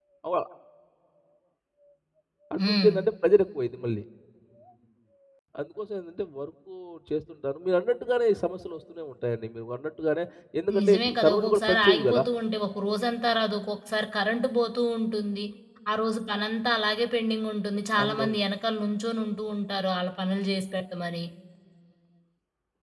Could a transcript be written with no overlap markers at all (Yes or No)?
No